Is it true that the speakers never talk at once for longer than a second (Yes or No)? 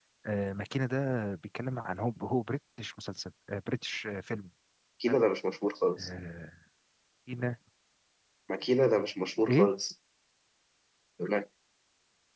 Yes